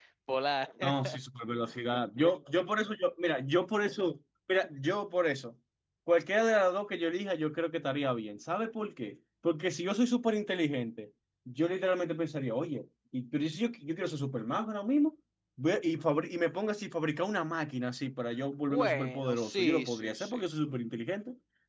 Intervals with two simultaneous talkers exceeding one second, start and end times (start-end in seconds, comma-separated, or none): 18.7-20.4